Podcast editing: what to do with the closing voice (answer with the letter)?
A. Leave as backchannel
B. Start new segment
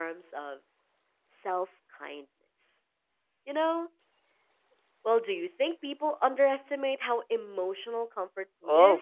B